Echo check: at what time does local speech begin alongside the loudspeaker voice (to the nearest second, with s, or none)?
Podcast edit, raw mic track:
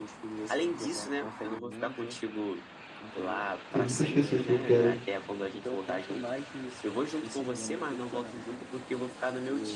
4 s